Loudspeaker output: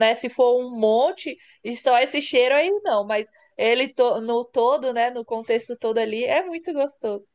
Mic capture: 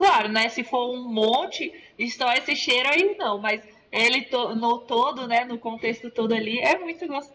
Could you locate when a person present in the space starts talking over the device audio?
none

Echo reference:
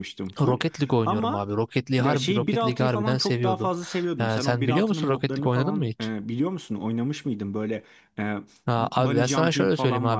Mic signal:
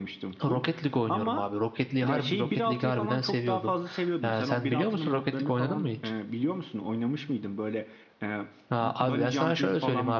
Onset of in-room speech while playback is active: none

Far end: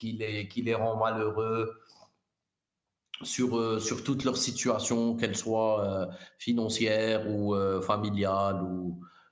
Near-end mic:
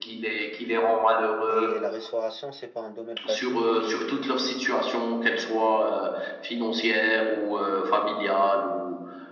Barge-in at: 1.5 s

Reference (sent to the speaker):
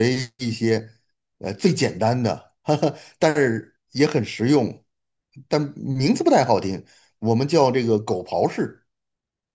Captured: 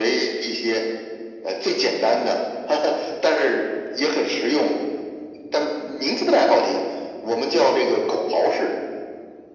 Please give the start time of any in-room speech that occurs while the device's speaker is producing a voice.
none

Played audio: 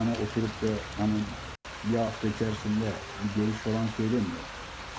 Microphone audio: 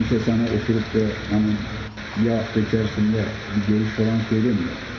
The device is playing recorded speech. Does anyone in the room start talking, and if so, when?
none

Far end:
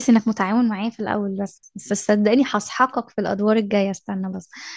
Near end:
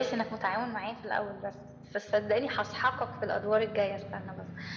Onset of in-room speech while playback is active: none

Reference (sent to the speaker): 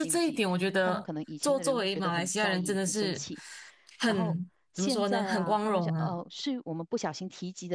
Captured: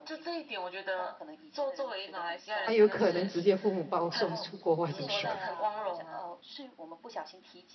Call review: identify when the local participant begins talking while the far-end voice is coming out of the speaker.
2.6 s

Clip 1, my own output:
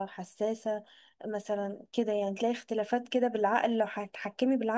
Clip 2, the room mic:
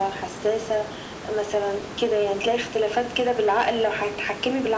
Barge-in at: none

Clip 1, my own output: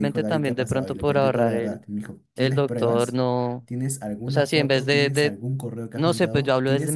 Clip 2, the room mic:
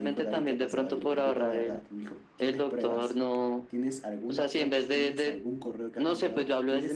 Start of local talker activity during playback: none

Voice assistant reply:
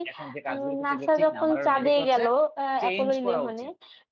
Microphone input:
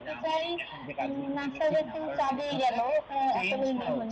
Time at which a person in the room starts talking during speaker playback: none

